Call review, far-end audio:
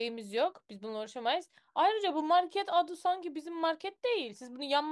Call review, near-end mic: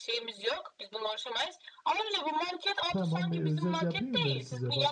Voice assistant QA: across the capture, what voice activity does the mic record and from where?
both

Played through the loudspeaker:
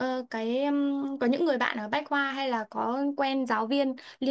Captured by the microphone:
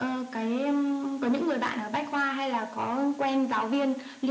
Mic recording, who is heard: echo only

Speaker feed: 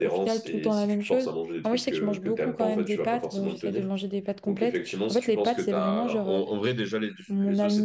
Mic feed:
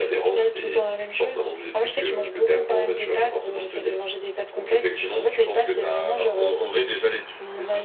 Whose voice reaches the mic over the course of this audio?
echo only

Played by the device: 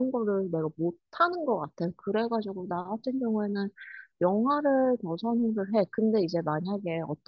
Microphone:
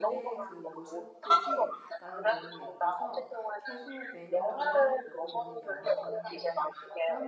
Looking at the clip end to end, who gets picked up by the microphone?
both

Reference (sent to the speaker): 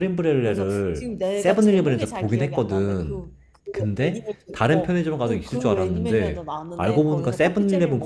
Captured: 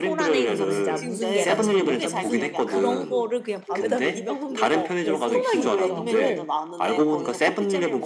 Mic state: both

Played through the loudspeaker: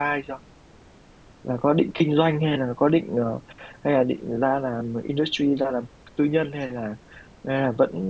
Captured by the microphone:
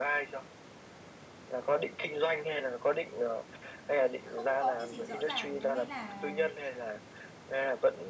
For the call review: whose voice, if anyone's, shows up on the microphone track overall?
both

